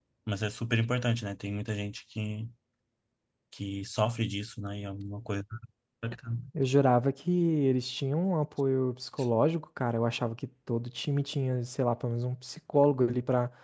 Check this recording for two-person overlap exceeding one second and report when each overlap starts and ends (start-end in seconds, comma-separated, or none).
none